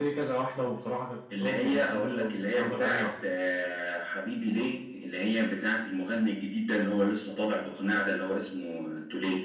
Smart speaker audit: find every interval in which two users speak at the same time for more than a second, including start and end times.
1.4-3.1

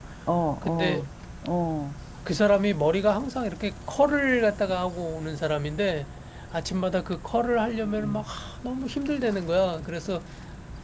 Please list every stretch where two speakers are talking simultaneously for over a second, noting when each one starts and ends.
none

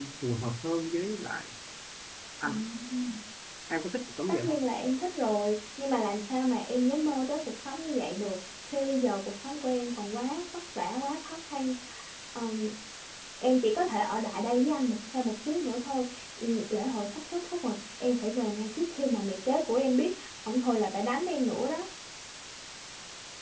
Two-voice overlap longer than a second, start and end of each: none

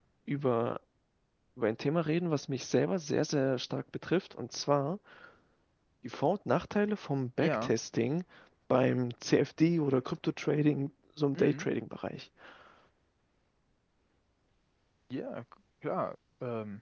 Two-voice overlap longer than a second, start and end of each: none

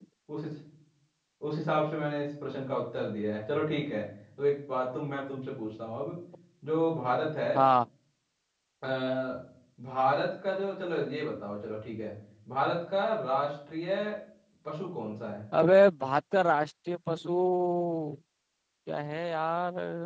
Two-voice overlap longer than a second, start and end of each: none

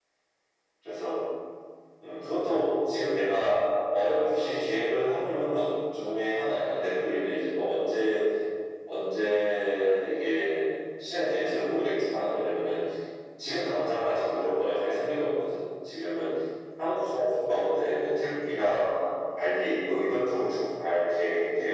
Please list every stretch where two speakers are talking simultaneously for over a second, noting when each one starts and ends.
none

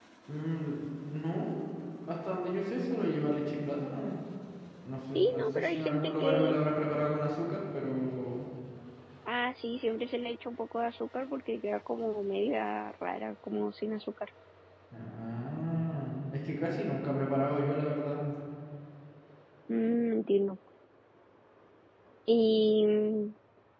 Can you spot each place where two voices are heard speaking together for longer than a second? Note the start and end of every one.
5.1-6.6

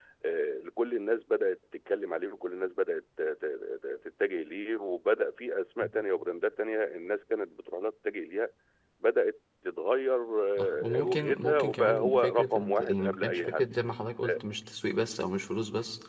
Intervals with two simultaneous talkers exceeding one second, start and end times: 10.6-13.6

